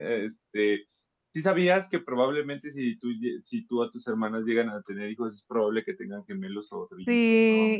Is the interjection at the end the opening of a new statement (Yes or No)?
Yes